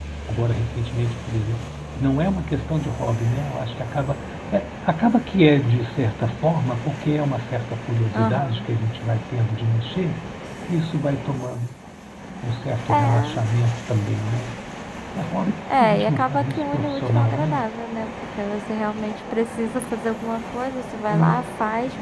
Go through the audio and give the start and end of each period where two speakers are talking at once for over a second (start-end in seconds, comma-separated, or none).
15.8-17.6